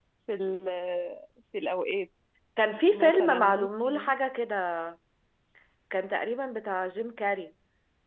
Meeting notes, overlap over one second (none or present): present